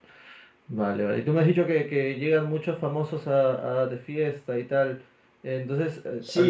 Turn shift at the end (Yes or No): Yes